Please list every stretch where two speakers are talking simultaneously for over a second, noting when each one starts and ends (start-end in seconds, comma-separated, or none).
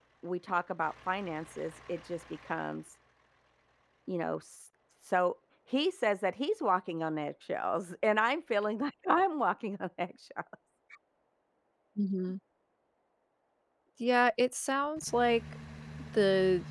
none